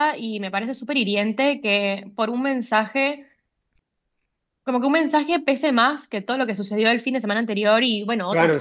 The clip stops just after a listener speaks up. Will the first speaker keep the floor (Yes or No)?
No